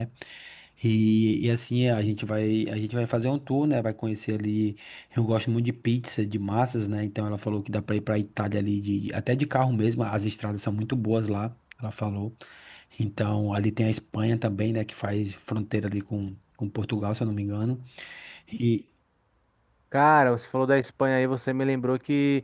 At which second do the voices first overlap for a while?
none

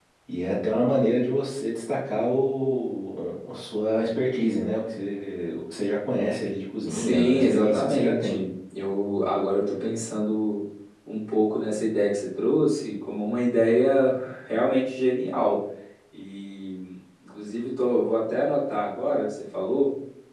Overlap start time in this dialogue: 7 s

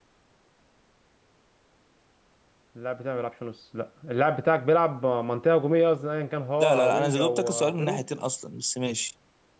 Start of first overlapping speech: 7 s

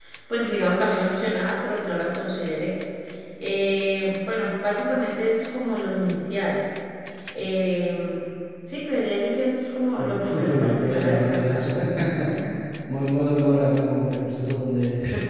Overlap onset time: 10 s

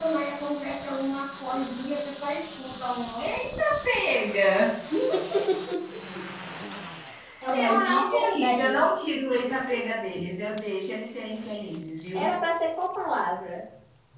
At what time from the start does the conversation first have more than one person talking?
8 s

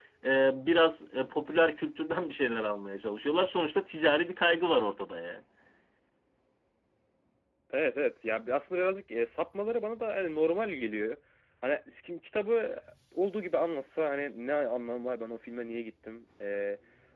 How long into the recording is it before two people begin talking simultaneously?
none

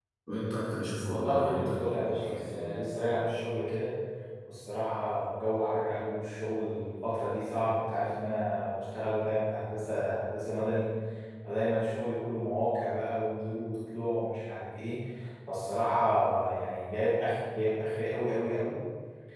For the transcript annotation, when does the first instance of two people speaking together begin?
1 s

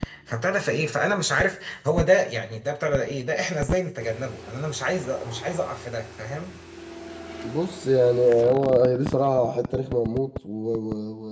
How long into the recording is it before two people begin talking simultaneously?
none

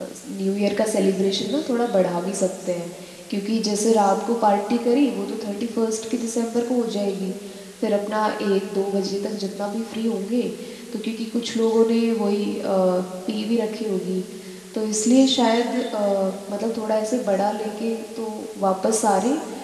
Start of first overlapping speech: none

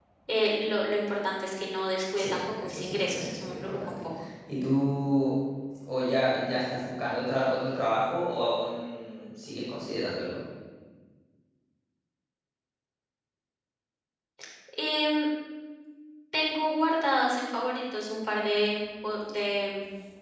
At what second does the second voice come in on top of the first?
2 s

